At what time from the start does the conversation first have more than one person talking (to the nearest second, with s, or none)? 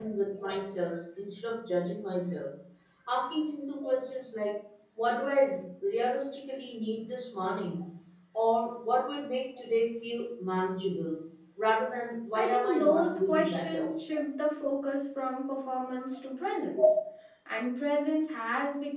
12 s